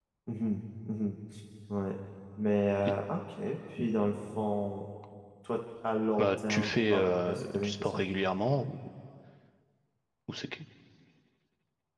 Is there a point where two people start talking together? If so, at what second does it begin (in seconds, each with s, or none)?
6.2 s